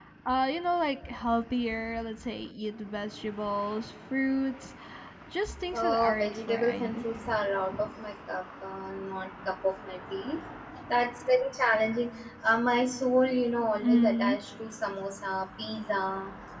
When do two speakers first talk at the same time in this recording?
5.7 s

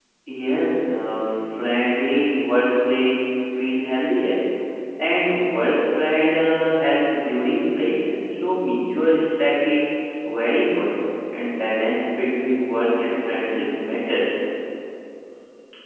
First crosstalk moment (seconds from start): none

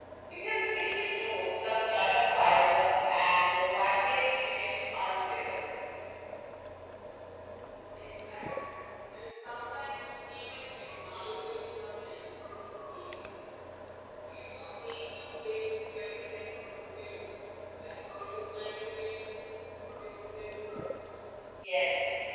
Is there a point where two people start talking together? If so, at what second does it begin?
none

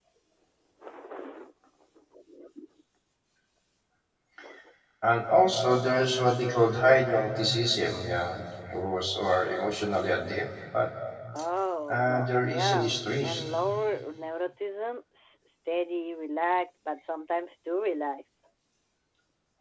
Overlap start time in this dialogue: 11.9 s

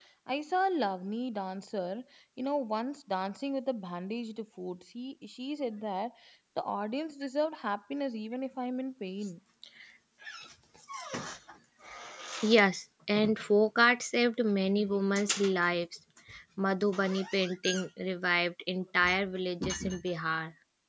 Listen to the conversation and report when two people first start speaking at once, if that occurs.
none

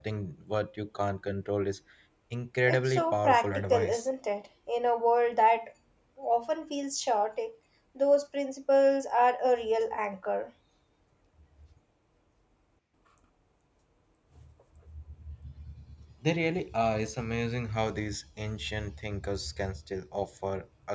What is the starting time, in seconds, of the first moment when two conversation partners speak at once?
2.7 s

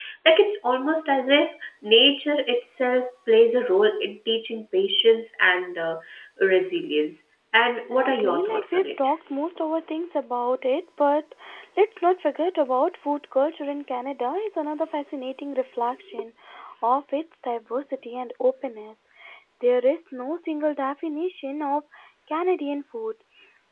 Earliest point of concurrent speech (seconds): 7.9 s

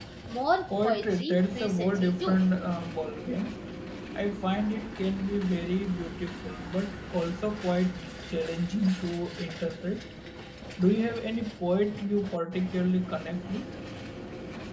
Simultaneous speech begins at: 0.8 s

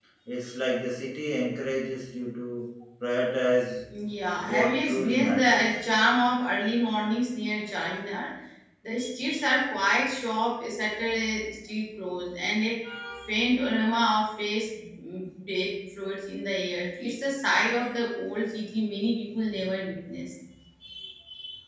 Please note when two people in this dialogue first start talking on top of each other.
4.4 s

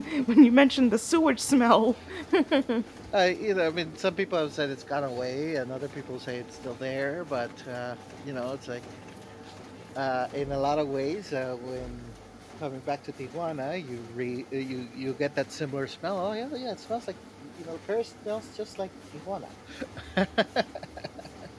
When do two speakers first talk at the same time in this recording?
none

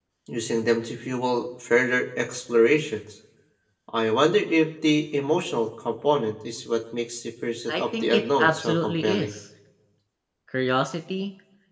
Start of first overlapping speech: 7.7 s

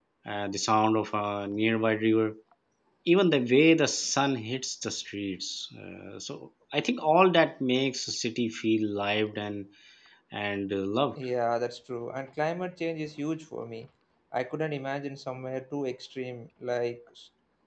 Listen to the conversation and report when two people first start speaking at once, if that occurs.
none

